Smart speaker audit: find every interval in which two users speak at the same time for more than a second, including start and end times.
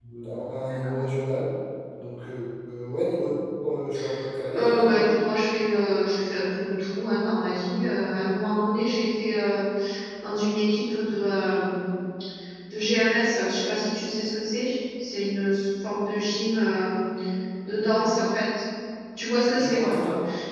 none

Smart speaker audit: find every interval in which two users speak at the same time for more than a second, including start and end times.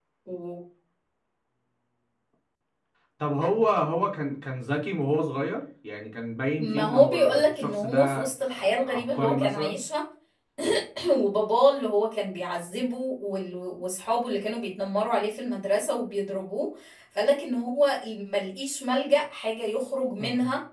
6.6-9.8

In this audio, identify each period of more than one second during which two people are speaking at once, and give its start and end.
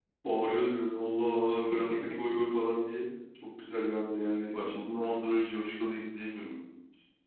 none

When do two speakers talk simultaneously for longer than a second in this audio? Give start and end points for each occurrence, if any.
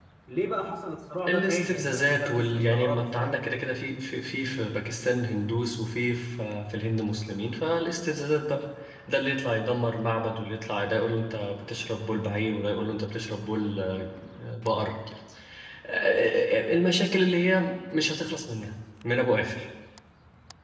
1.3-3.4

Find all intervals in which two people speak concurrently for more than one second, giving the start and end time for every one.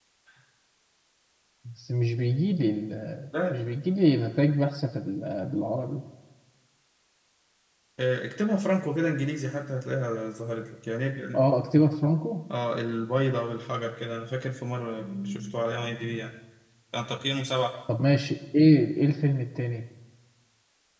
none

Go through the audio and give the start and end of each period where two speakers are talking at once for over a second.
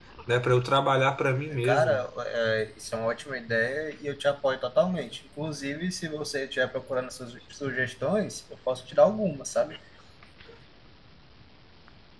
none

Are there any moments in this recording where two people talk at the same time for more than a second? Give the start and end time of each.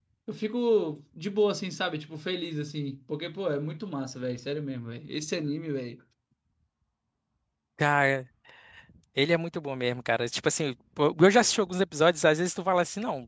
none

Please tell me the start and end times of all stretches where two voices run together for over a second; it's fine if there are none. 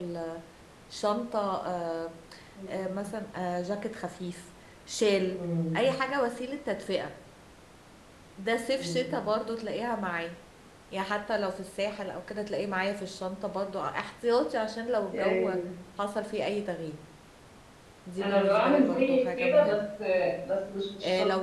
18.2-19.8

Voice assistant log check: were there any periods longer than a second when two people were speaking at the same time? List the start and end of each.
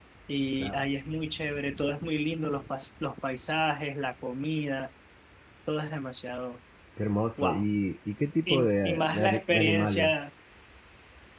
8.5-10.2

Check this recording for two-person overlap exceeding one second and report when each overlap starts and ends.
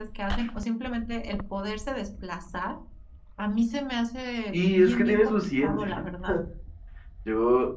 4.5-5.9

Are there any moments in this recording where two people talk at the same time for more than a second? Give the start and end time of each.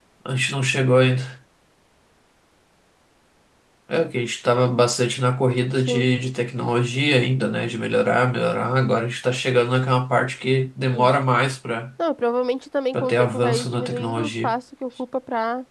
12.9-14.5

